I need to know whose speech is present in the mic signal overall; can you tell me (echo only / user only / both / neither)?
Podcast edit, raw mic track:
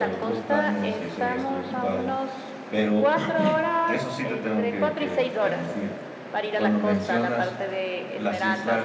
both